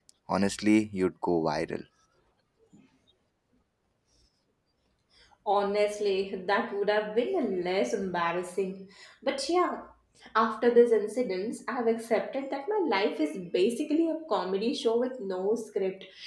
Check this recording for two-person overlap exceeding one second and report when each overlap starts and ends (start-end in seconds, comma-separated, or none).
none